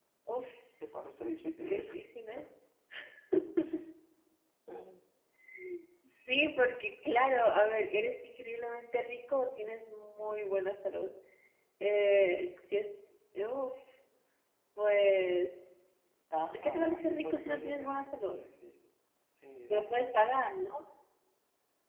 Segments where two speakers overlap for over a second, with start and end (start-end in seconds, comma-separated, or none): 16.5-18.4